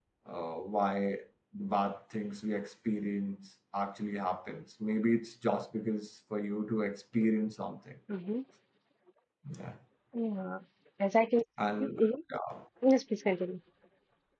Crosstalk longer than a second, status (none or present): none